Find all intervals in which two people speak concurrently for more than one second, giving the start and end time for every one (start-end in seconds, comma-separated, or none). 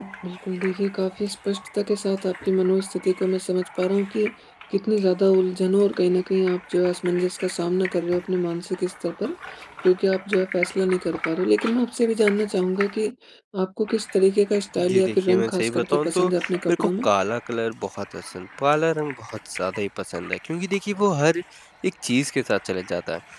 14.9-16.2